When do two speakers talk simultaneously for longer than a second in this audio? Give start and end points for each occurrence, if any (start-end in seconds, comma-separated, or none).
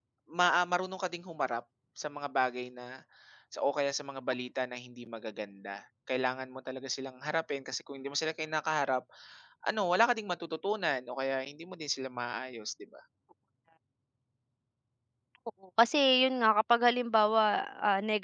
none